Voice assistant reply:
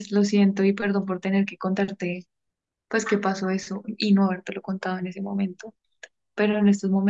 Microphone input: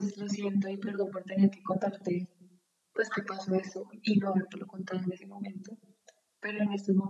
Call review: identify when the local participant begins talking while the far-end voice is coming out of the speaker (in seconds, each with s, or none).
none